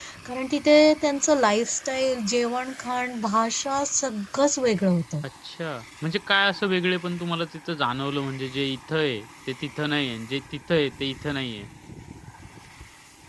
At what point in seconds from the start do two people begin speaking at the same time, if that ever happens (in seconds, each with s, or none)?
none